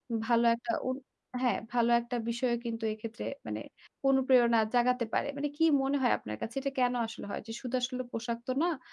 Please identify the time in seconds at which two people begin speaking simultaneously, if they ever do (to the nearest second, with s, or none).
none